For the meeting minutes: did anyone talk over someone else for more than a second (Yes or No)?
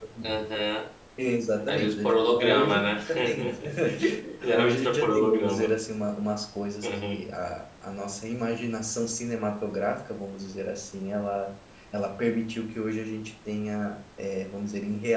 Yes